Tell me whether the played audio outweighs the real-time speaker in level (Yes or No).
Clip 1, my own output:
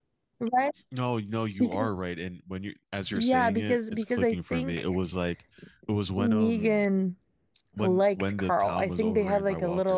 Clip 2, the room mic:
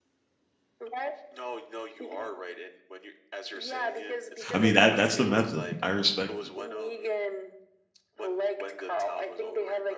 No